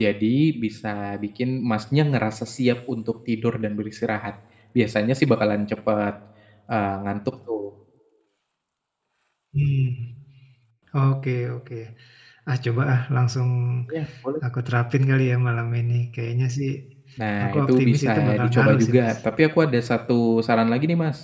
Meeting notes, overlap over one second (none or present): present